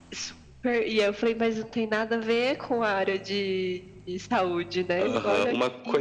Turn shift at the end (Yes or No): Yes